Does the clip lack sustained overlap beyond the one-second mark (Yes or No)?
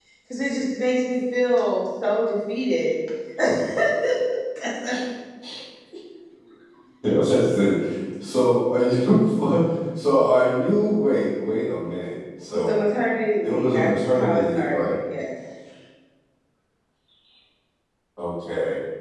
No